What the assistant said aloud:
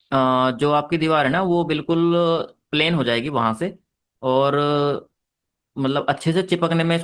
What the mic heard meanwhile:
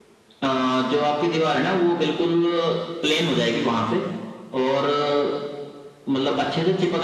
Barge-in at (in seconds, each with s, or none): none